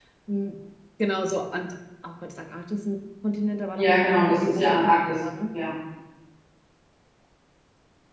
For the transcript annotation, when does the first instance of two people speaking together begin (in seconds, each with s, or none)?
3.8 s